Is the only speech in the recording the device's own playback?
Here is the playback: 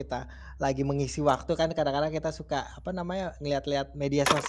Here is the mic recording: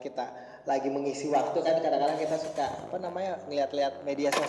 Yes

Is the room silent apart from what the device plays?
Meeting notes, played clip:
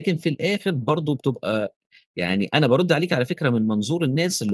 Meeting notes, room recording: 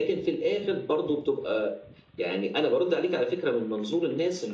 Yes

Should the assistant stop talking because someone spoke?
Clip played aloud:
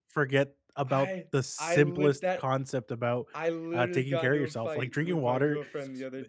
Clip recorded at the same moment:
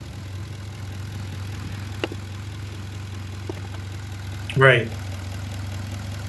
Yes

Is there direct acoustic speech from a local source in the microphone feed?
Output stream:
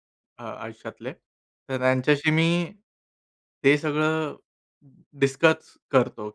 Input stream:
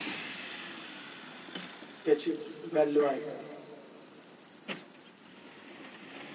Yes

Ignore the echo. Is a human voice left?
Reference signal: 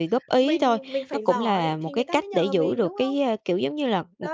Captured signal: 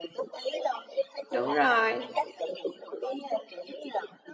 Yes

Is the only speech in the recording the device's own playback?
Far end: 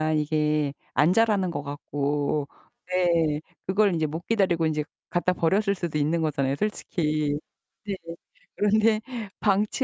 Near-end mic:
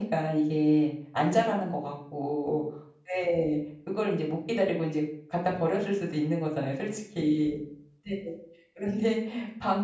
Yes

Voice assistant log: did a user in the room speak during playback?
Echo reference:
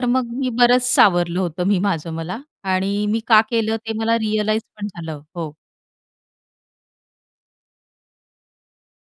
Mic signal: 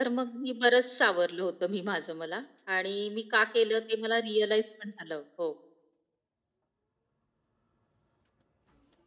No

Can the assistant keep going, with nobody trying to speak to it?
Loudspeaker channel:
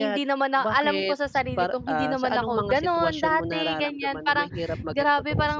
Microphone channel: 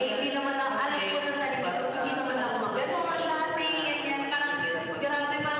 Yes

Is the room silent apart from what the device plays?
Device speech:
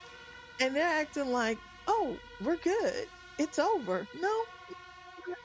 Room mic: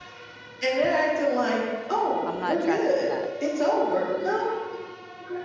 No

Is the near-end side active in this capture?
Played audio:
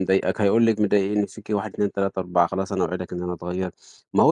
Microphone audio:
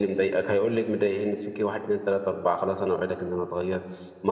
No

